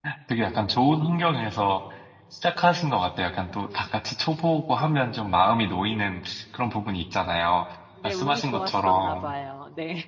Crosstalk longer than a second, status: present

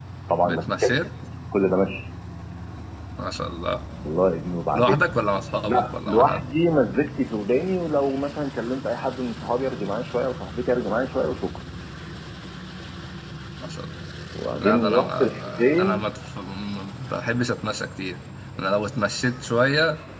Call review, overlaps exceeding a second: present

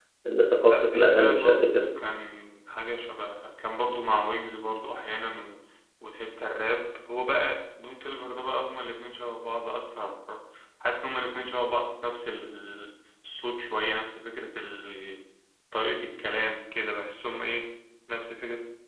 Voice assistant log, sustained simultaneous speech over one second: present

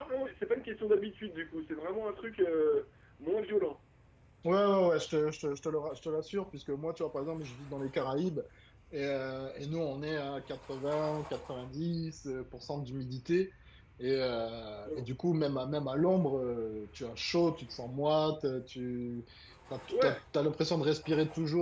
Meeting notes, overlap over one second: none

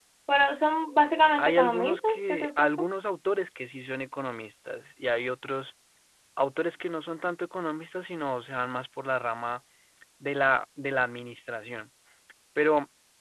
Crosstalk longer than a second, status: present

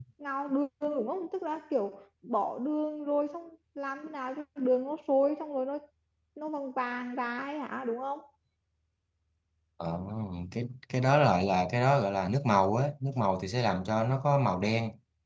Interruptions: none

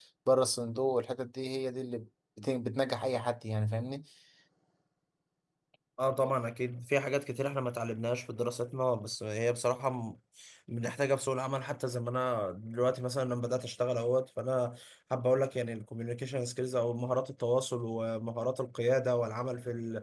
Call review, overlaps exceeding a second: none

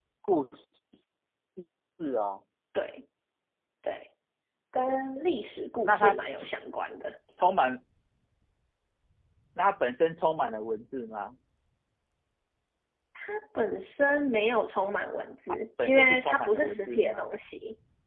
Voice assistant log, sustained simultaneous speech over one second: present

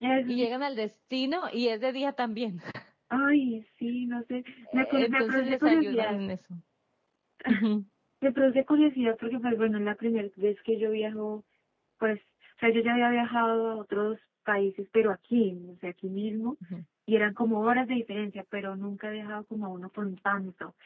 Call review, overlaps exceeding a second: present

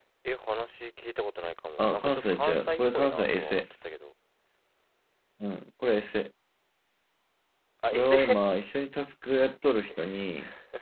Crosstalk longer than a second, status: present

